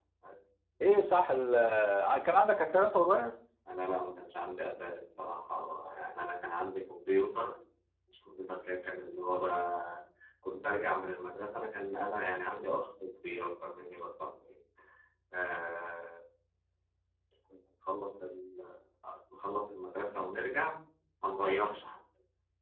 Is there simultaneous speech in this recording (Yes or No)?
No